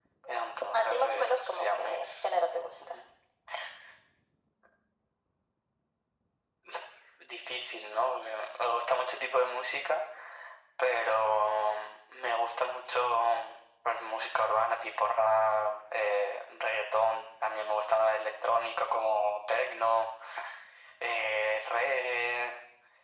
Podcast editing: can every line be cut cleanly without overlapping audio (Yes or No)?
No